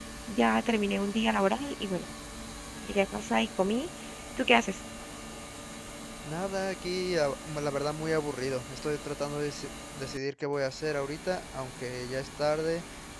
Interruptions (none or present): none